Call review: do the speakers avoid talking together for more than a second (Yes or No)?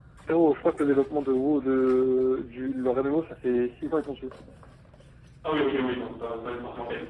Yes